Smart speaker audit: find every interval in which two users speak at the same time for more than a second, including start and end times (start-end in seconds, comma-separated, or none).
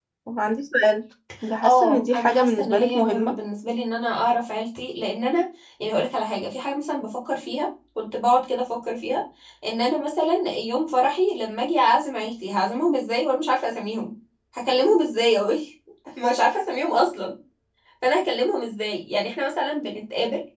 1.6-3.3